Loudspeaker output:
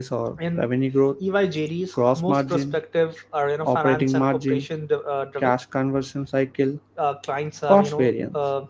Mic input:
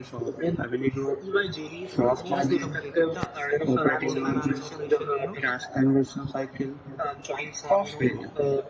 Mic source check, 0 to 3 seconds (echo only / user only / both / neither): both